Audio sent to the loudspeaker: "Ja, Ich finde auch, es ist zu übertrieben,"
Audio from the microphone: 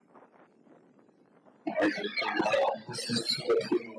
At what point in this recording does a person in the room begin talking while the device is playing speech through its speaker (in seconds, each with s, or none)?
none